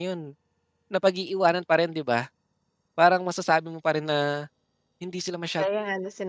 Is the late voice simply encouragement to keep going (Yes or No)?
No